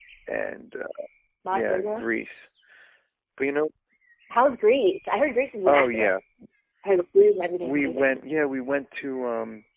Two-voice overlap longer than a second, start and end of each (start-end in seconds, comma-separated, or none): none